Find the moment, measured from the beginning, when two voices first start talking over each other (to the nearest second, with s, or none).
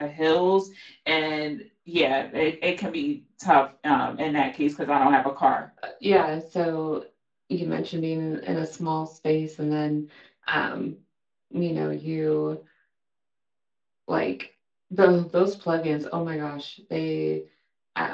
none